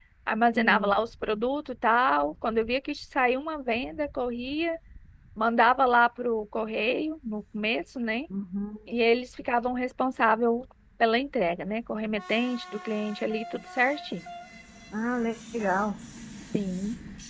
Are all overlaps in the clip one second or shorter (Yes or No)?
Yes